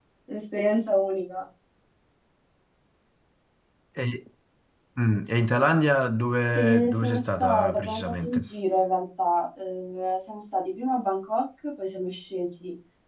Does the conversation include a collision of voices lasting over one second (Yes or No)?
Yes